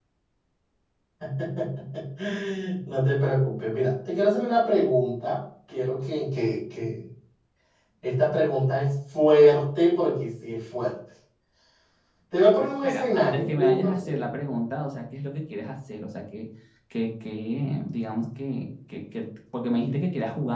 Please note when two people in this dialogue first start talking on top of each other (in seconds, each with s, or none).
12.7 s